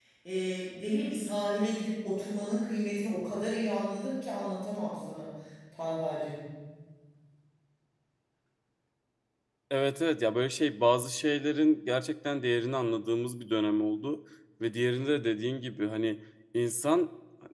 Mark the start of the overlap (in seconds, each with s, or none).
none